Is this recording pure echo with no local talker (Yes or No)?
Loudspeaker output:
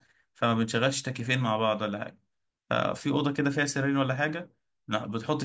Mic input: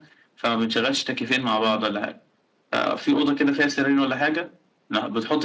No